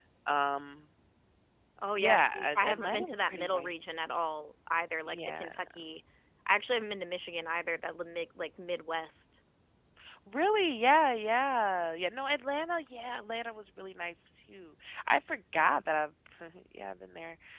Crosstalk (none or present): present